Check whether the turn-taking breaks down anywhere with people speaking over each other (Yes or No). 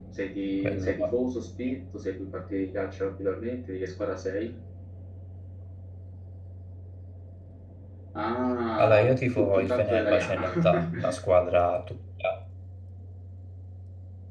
Yes